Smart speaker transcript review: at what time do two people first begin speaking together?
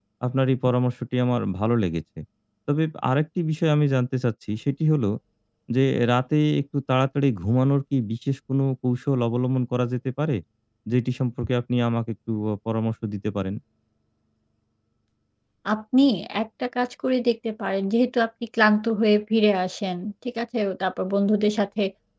none

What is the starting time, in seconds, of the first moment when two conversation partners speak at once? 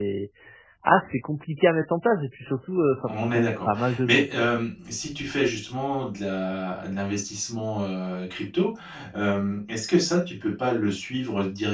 3.1 s

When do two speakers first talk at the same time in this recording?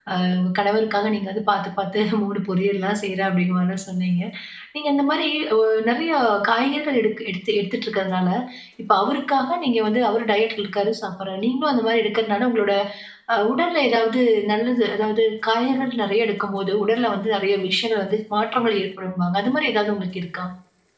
none

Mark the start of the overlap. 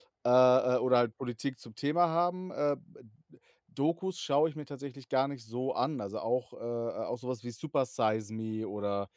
none

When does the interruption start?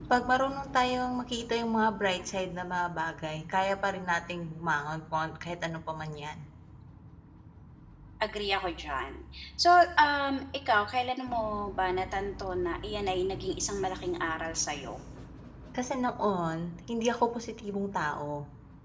none

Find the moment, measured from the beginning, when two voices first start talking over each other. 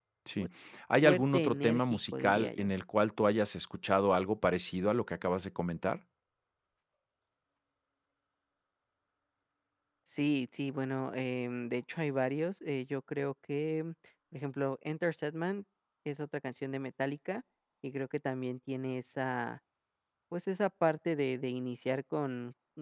1.0 s

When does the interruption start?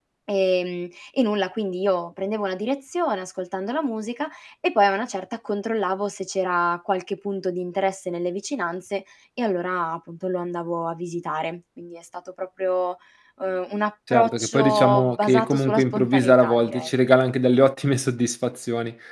14.1 s

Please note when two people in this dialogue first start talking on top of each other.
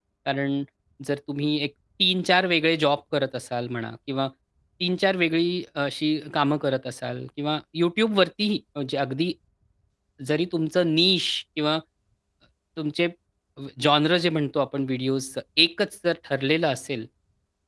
none

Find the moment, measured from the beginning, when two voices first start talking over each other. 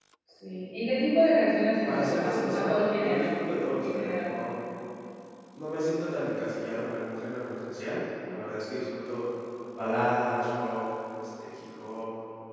1.9 s

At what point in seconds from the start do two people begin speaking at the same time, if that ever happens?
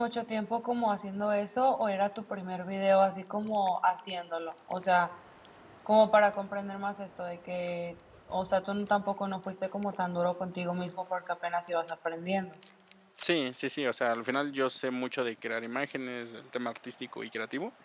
none

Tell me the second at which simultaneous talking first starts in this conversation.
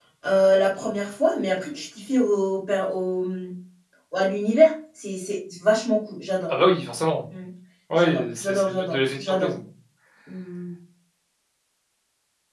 8.0 s

